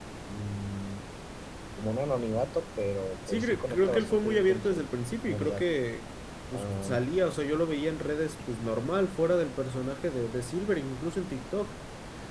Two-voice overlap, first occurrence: 3.3 s

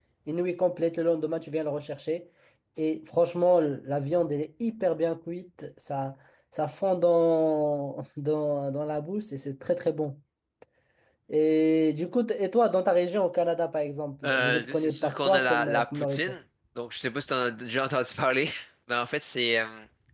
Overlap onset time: 14.2 s

